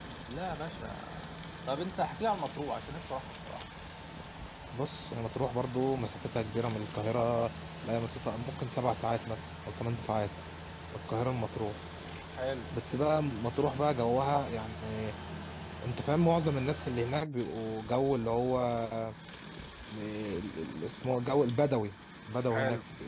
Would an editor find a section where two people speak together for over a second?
No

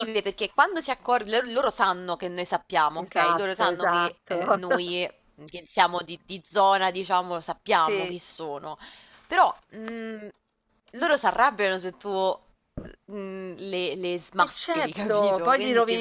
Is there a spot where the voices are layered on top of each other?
Yes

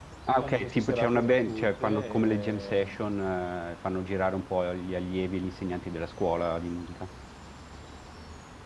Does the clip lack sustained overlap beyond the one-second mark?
No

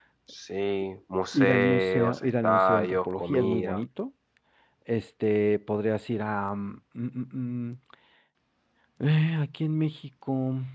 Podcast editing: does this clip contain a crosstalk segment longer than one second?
Yes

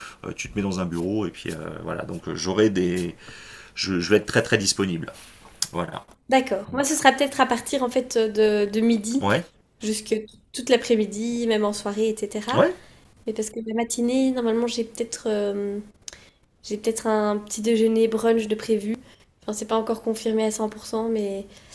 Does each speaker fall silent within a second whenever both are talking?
Yes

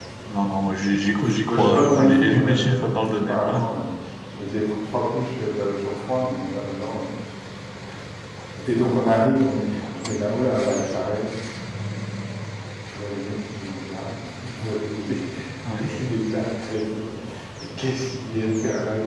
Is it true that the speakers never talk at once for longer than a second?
No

